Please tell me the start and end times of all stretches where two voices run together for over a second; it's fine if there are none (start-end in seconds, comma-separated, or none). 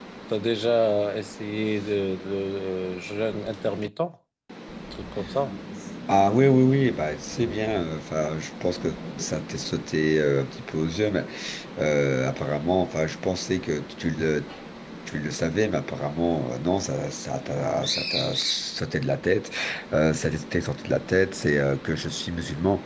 none